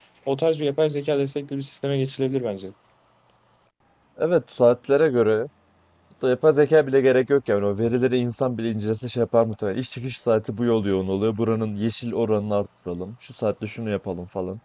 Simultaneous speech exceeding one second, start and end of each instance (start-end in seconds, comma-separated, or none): none